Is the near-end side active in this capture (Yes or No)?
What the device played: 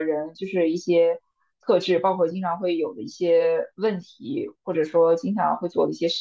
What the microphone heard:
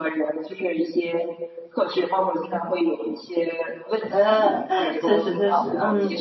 Yes